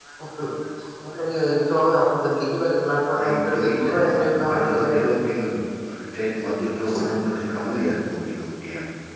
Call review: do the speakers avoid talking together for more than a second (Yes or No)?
No